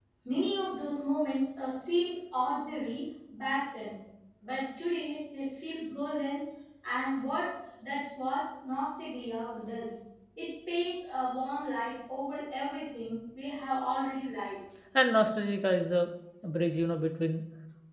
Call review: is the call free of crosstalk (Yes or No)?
Yes